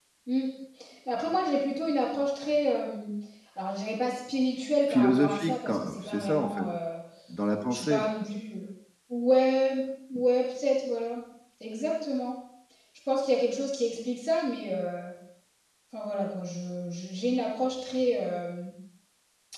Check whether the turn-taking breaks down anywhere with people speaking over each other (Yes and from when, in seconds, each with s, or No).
Yes, from 4.9 s